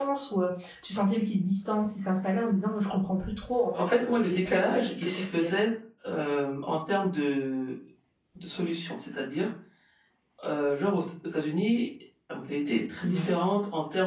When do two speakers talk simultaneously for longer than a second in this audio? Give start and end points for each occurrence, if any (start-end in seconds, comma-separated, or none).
3.8-5.5